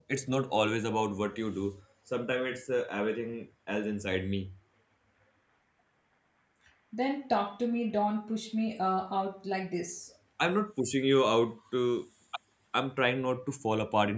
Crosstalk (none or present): none